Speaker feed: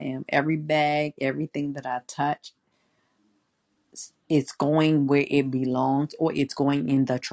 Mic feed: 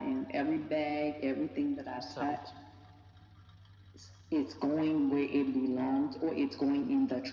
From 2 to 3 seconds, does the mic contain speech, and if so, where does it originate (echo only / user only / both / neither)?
both